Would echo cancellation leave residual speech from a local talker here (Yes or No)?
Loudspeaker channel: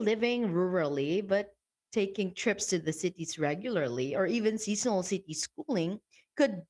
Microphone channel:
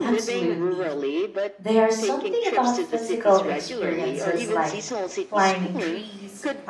Yes